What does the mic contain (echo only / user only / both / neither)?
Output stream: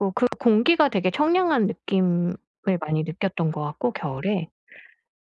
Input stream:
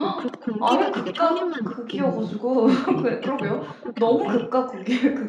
both